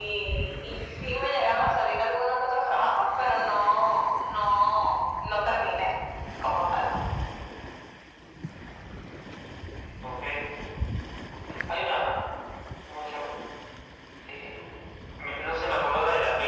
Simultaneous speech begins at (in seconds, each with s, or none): none